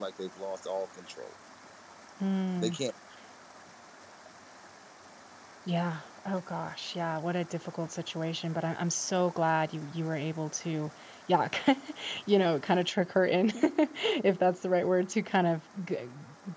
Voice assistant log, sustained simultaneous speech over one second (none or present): none